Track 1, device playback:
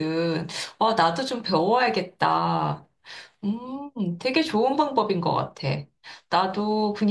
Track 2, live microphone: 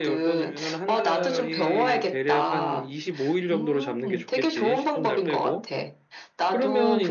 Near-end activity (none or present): present